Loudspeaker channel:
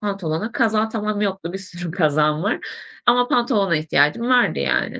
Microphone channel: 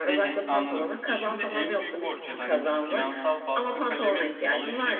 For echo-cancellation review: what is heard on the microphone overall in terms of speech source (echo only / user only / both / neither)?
both